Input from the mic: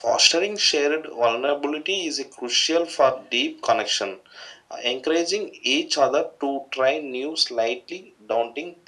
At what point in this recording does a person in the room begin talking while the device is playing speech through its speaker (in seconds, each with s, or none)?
none